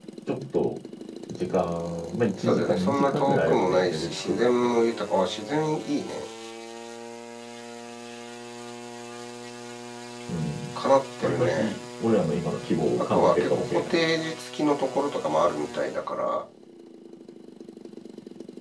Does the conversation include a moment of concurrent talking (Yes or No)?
Yes